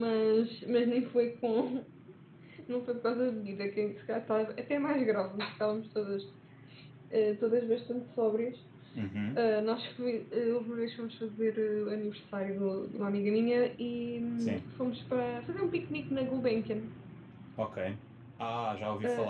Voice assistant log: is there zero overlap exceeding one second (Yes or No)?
Yes